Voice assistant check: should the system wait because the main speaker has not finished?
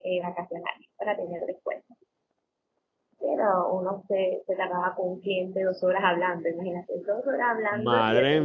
No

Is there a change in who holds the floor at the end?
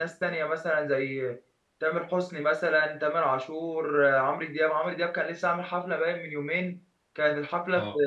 No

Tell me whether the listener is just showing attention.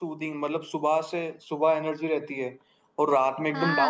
No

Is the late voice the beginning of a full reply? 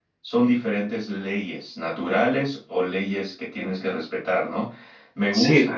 No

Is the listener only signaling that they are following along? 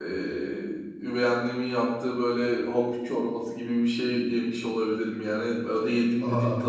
Yes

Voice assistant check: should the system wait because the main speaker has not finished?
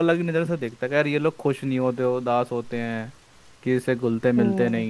Yes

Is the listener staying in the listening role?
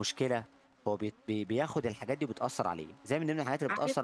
Yes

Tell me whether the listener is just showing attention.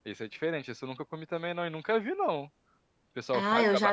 No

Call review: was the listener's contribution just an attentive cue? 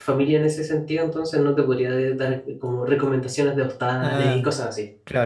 No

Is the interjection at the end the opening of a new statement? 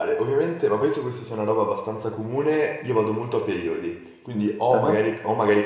No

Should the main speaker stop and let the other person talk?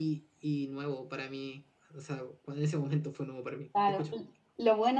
Yes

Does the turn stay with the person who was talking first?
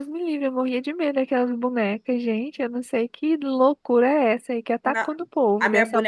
No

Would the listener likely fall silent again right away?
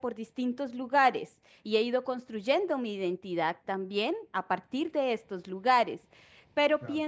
Yes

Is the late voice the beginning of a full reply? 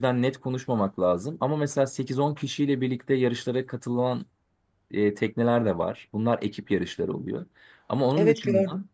No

